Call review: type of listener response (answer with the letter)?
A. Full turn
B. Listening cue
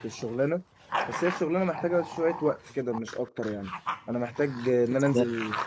B